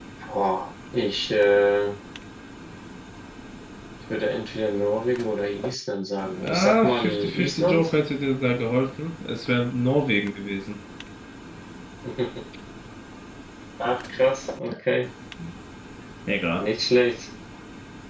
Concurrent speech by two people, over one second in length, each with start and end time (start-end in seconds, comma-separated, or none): 6.4-7.9